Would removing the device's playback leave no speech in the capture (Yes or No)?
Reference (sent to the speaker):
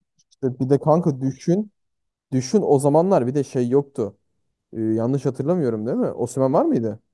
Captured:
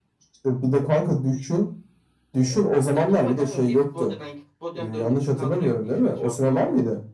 No